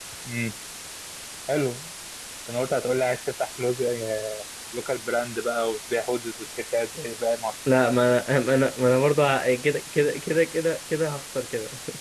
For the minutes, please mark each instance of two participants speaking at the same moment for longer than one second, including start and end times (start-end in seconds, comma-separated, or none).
none